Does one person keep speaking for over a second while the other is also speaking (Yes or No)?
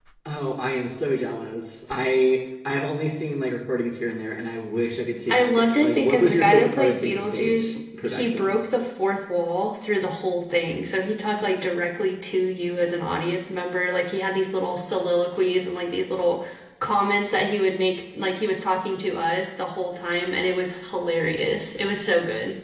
Yes